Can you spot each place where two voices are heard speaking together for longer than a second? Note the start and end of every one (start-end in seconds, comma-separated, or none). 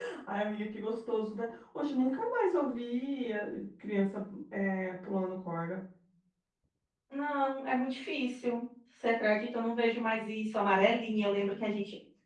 none